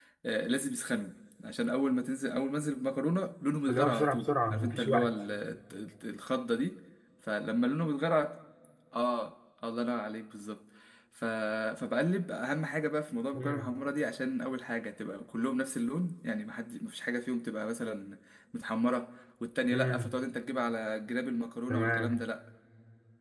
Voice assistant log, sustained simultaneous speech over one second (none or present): present